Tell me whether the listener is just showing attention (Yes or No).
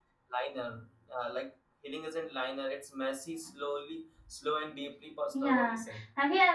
No